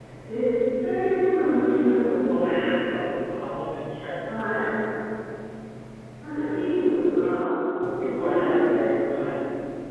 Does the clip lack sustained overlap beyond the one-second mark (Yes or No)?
No